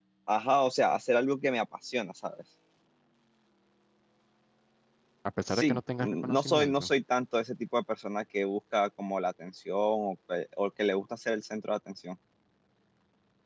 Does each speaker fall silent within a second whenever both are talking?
No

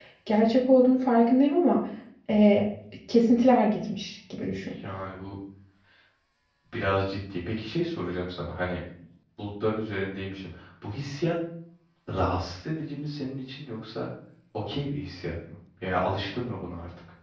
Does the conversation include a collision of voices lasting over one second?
No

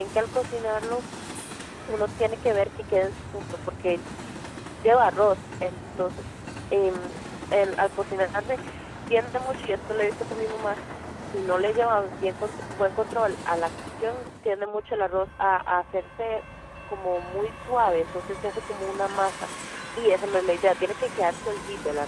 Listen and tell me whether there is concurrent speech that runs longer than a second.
No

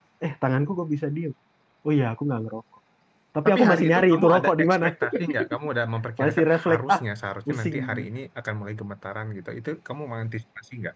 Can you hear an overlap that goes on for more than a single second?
Yes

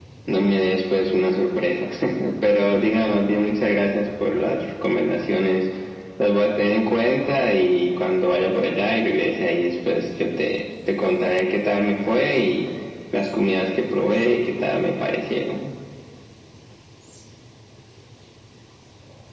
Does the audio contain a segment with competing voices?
No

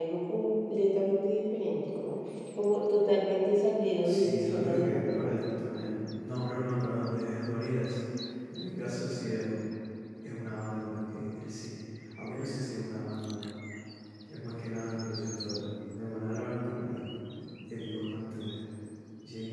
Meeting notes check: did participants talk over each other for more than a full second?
Yes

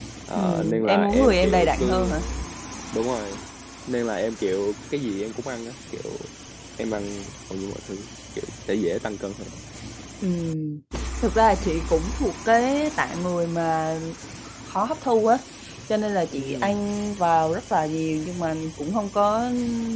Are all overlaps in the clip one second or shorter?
No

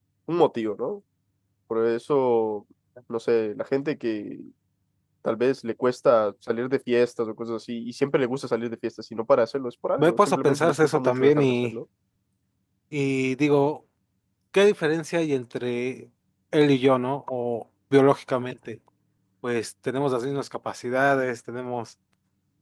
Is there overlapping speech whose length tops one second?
Yes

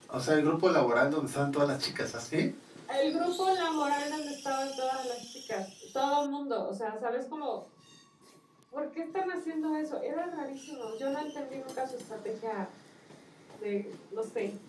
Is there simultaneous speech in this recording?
No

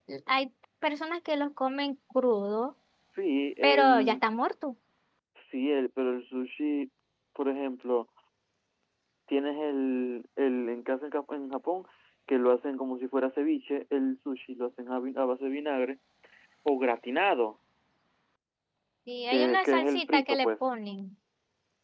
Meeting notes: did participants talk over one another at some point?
Yes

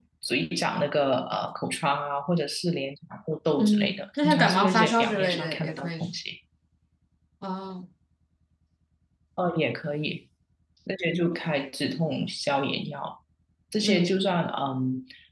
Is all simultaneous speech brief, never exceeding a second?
No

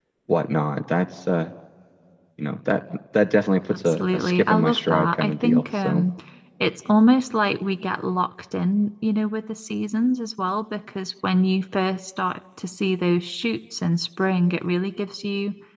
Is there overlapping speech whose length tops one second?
Yes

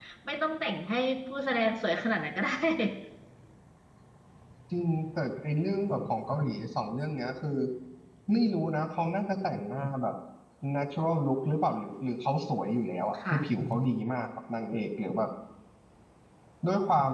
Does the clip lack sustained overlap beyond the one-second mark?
Yes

